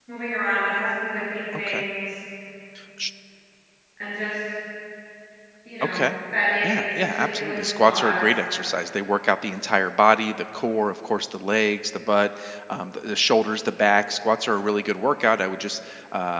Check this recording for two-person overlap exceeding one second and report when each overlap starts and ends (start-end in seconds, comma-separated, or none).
6.6-8.2